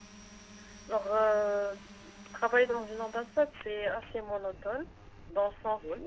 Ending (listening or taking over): listening